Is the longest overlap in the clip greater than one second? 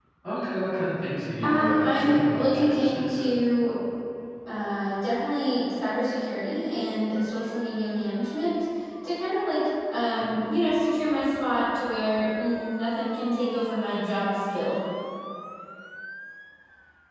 Yes, from 1.4 s

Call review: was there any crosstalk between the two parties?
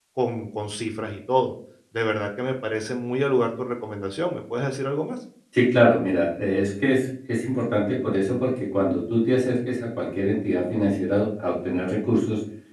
No

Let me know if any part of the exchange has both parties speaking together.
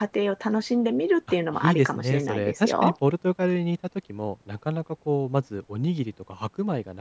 Yes, from 1.5 s

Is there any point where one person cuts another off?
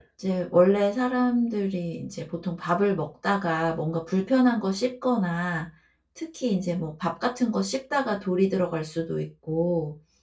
No

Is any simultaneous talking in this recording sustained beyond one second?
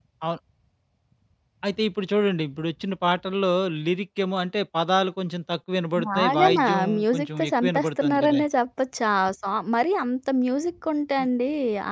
Yes, from 6.0 s

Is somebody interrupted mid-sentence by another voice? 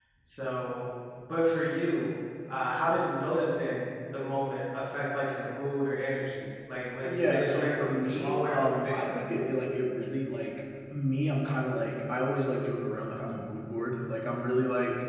Yes, from 7.0 s

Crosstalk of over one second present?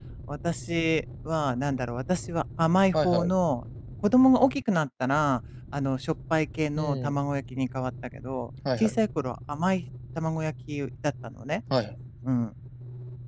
No

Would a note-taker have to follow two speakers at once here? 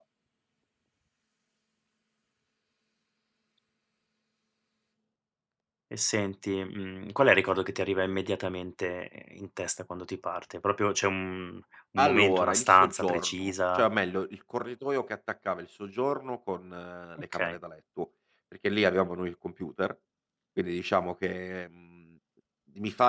Yes, from 12.0 s

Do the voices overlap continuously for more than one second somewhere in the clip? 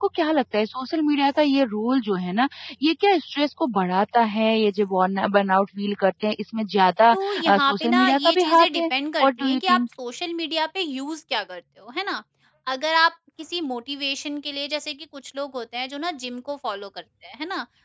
Yes, from 7.1 s

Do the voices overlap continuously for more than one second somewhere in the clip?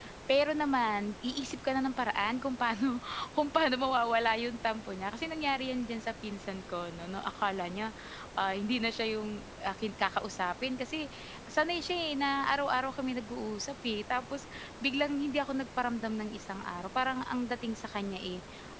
No

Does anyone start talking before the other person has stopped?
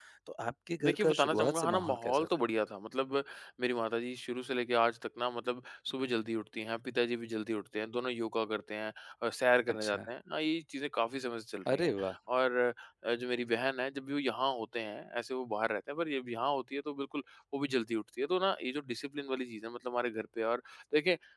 Yes, from 0.8 s

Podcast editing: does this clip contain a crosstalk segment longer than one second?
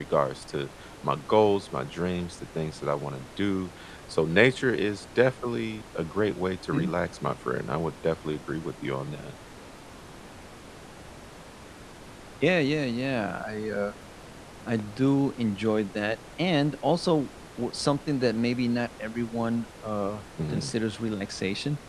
No

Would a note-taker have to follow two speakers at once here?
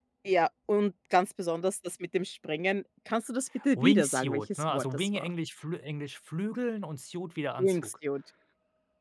Yes, from 3.8 s

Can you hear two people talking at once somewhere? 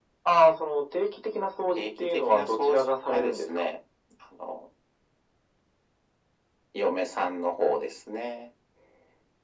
Yes, from 1.8 s

